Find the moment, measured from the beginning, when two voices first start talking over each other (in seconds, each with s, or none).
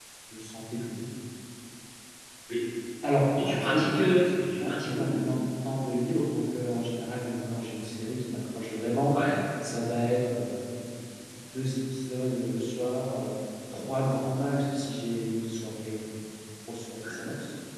3.4 s